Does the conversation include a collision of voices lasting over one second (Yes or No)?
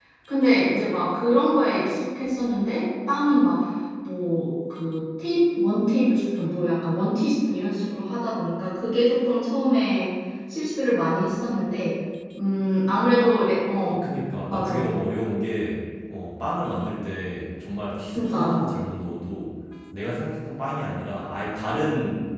No